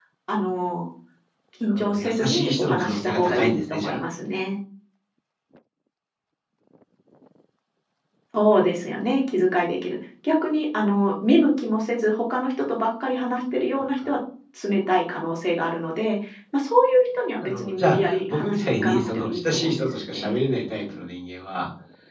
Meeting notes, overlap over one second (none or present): present